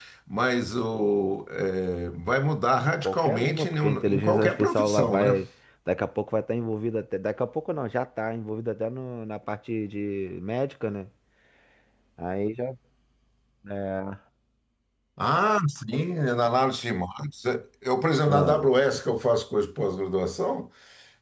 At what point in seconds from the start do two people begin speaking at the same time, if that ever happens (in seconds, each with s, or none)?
3.0 s